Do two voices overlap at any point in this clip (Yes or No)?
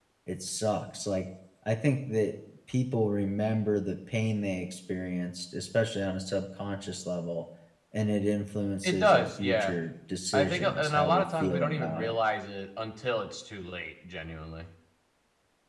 Yes